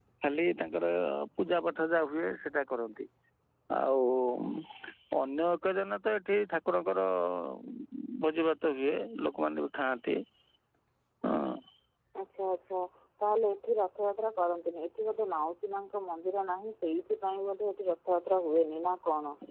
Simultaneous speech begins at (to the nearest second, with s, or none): none